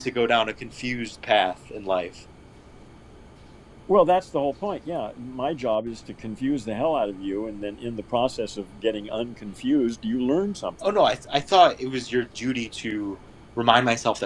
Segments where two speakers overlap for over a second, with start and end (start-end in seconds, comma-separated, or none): none